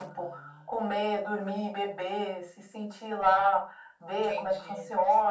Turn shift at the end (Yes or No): Yes